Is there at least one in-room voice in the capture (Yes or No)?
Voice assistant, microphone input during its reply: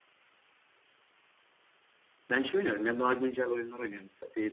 Yes